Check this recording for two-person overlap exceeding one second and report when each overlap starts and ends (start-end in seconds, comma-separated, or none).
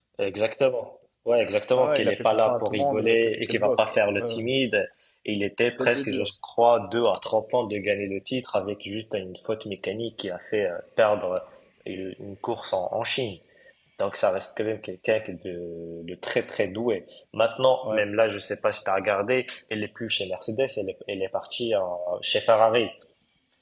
1.8-4.5